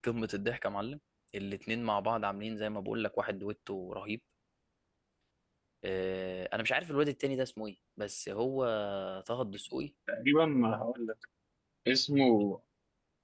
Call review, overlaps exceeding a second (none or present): none